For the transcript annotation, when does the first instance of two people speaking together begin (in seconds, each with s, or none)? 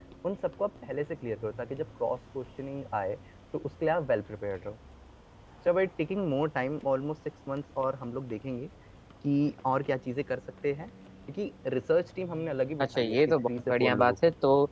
12.8 s